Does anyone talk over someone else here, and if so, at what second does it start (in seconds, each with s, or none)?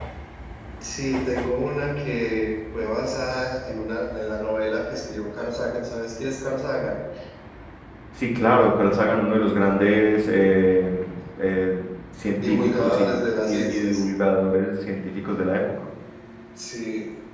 12.4 s